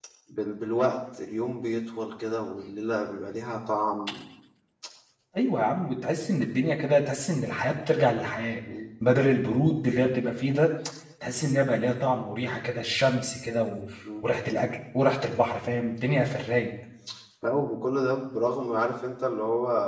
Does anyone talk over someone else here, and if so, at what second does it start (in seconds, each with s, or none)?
none